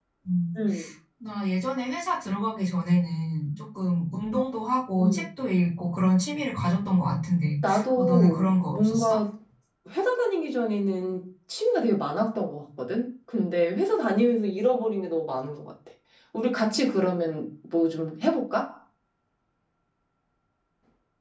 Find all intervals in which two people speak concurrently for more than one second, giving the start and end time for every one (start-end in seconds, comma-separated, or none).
8.0-9.2